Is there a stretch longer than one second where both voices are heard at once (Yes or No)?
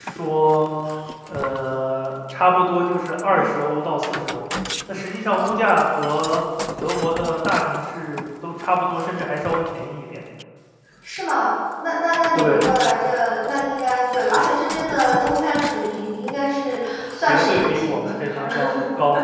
Yes